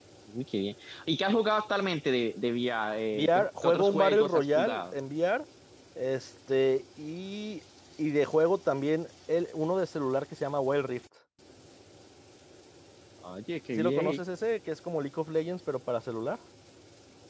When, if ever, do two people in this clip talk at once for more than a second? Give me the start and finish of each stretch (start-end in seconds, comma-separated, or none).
3.1-4.9